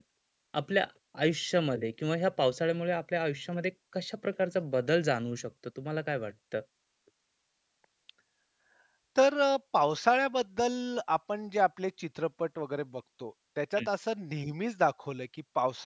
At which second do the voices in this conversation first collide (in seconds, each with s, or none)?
none